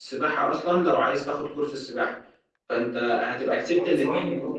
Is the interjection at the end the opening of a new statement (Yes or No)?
Yes